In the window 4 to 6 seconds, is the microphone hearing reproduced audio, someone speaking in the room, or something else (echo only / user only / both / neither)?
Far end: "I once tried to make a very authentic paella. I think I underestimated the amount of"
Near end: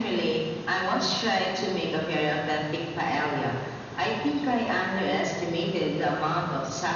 echo only